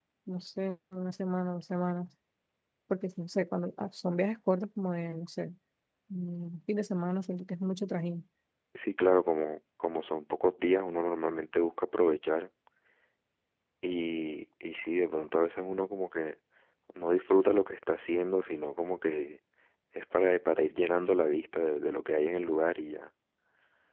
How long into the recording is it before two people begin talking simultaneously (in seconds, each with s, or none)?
none